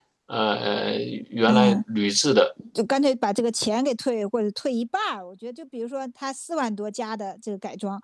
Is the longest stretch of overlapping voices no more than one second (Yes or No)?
Yes